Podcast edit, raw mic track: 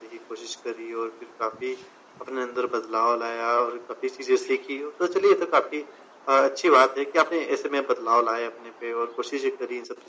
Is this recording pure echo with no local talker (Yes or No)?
Yes